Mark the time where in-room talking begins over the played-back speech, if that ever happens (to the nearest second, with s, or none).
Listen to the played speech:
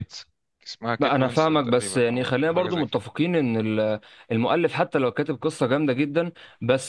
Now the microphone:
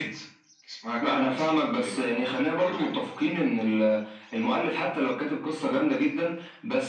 none